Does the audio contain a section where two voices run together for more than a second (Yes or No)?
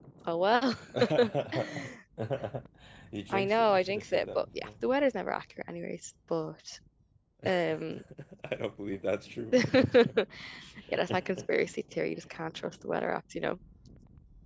Yes